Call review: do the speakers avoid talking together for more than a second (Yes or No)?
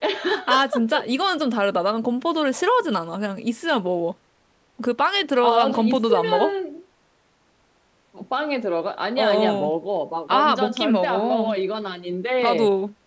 No